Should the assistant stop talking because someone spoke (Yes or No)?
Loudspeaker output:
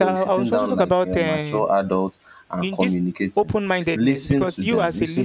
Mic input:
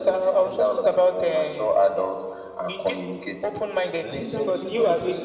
Yes